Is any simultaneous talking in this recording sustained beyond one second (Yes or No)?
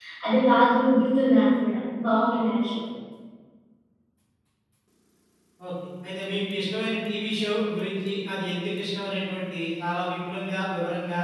No